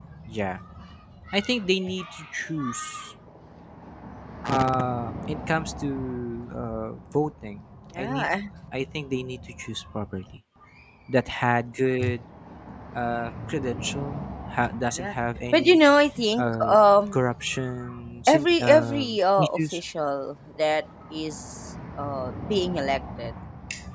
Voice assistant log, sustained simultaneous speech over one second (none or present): present